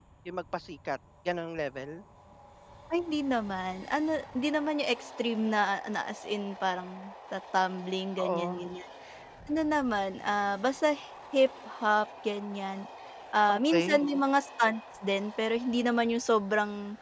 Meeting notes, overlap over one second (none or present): none